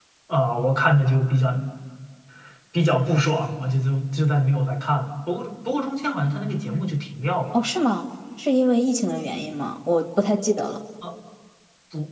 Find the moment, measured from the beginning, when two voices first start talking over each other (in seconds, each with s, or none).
none